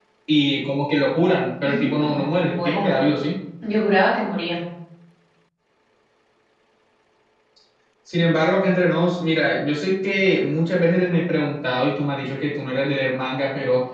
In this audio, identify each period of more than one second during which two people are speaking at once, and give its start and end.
1.6-3.0

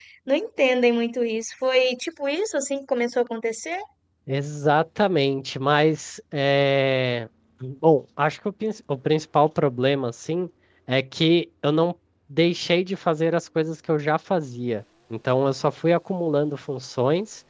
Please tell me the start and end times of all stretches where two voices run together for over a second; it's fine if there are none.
none

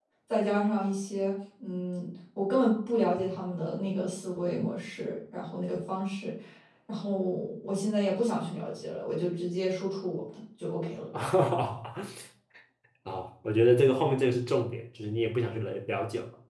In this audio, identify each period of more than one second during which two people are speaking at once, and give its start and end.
none

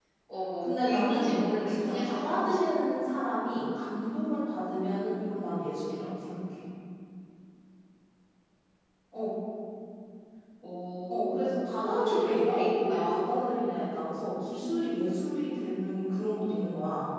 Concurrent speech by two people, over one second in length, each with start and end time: 0.6-2.6, 11.1-13.3

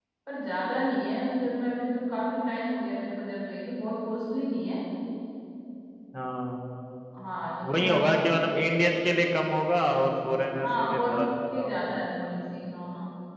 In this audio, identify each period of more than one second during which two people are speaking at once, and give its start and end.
10.6-11.9

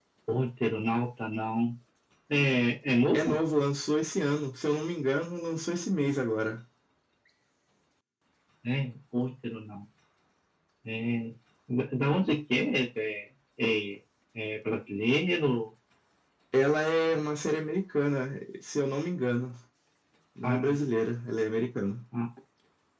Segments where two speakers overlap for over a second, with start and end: none

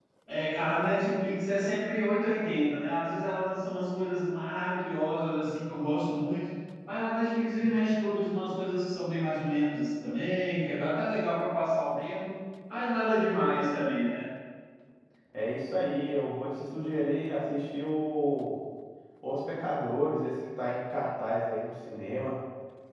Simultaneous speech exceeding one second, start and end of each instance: none

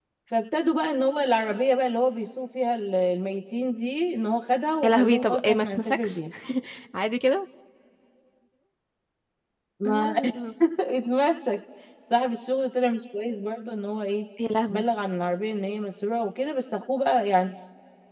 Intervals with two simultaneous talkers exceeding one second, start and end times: 4.8-6.2

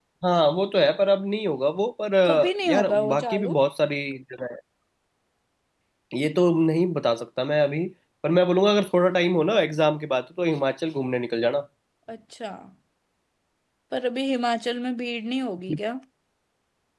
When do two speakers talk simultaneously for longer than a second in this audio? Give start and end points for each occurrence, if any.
2.2-3.6

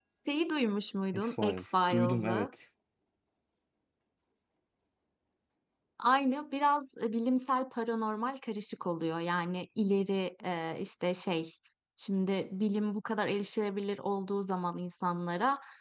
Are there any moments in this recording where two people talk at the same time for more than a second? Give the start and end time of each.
1.1-2.5

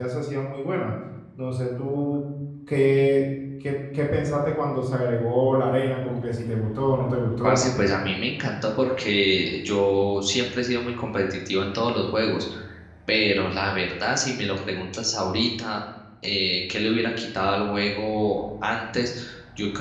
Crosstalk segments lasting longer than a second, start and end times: none

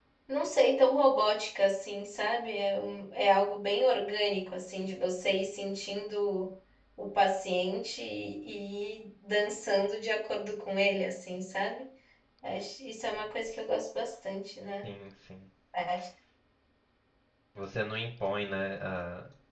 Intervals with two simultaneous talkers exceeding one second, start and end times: none

